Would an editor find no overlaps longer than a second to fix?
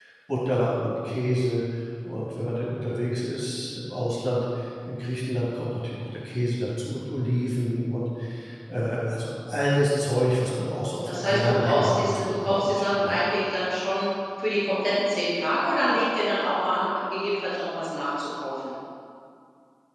No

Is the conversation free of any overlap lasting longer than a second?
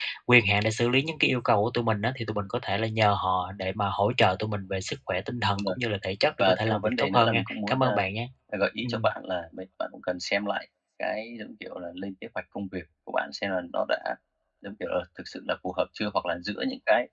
No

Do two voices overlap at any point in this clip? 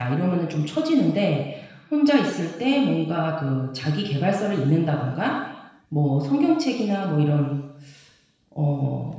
No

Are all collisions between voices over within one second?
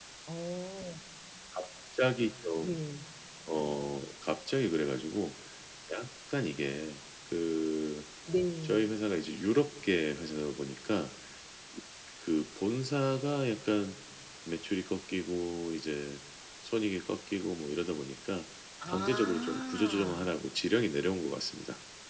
No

